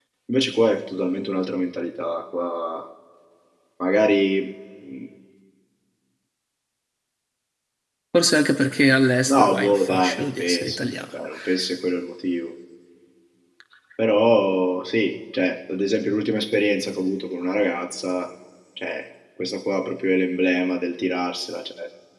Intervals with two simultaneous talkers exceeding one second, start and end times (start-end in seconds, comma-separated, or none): 9.3-10.9